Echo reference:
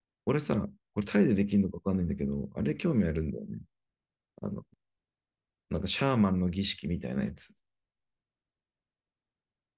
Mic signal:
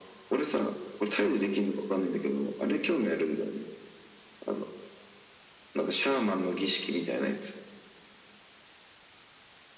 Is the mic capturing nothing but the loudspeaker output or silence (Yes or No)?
Yes